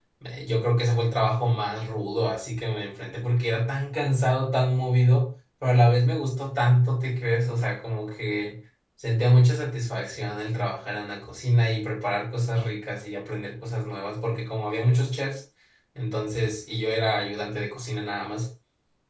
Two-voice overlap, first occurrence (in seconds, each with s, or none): none